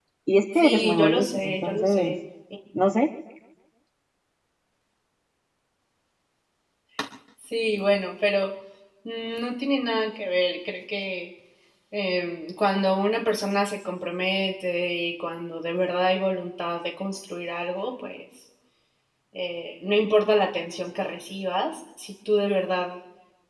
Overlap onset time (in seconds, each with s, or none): 0.5 s